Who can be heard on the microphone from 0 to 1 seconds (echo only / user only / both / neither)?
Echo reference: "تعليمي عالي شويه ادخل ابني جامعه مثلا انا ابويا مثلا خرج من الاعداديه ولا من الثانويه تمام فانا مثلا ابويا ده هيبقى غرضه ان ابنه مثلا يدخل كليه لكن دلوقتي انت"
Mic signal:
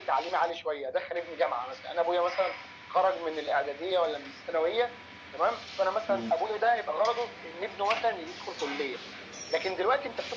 echo only